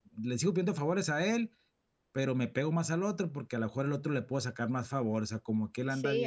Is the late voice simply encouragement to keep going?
No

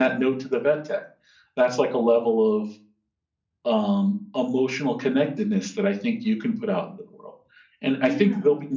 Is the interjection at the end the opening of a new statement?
No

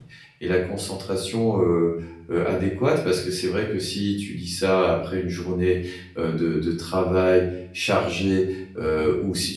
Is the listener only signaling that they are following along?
Yes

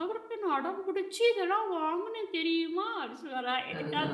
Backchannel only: Yes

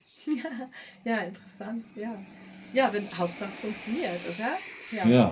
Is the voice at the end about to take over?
No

